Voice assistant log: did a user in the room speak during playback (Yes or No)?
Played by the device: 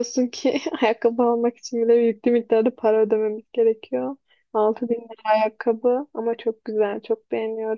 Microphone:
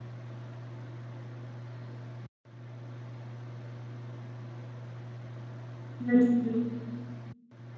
Yes